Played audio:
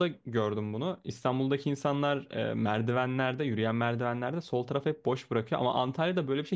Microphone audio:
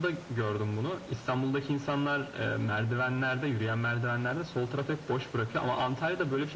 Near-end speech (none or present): none